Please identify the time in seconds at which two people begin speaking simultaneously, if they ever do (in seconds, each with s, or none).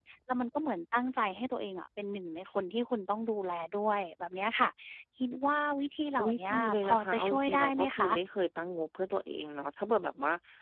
6.2 s